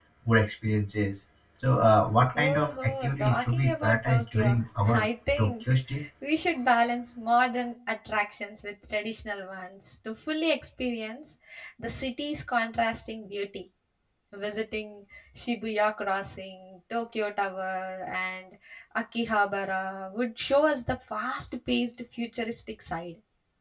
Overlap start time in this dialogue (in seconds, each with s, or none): 2.4 s